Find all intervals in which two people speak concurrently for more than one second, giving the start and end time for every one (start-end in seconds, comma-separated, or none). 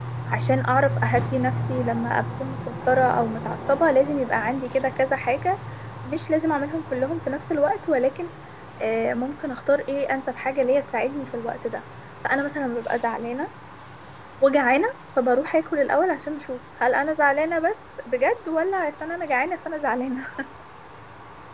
none